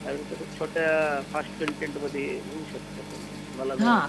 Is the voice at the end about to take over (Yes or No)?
Yes